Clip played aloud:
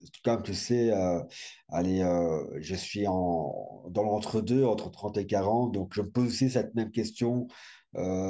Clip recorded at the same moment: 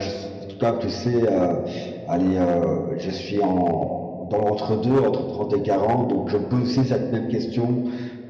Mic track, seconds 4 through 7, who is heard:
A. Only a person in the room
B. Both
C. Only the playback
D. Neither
C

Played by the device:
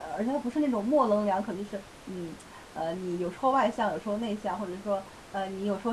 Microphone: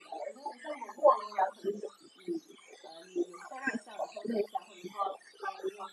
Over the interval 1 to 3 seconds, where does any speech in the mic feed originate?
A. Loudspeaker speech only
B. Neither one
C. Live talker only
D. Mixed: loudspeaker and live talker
A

